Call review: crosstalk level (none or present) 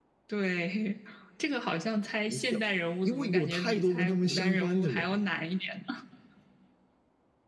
present